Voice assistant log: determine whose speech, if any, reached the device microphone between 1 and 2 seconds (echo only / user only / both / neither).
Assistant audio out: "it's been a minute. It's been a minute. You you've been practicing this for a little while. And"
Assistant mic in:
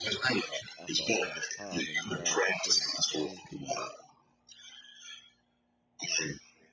both